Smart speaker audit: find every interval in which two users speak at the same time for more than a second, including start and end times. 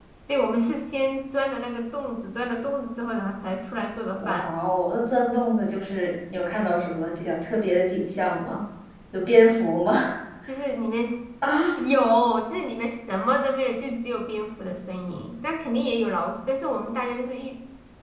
none

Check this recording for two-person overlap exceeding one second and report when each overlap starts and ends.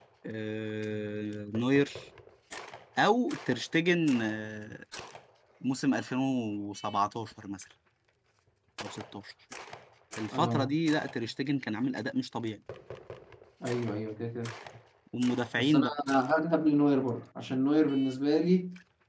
none

